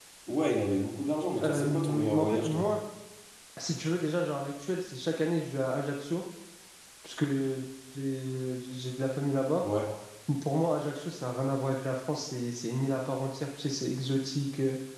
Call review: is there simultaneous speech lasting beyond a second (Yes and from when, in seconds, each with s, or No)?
Yes, from 1.4 s